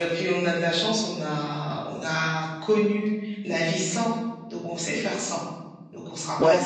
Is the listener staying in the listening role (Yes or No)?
No